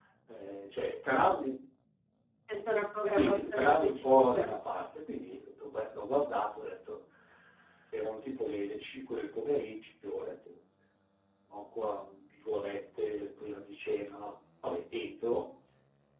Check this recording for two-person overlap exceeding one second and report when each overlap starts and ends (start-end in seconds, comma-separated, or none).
3.1-4.5